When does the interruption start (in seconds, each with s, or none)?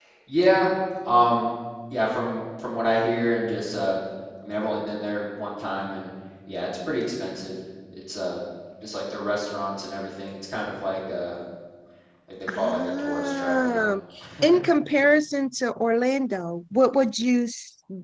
12.5 s